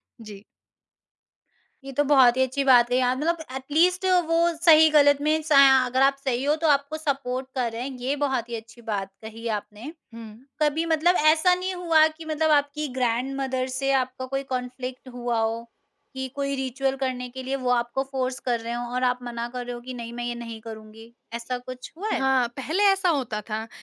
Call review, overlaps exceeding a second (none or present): none